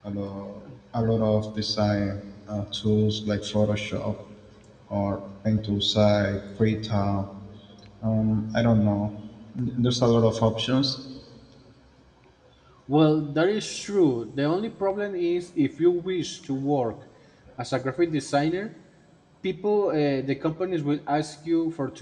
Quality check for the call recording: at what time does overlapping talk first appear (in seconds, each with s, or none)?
none